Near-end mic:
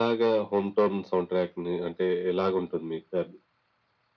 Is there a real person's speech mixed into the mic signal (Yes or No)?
No